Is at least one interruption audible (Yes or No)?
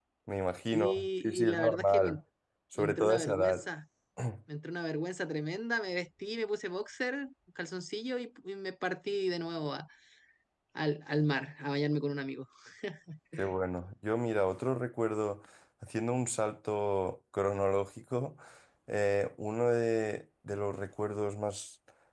Yes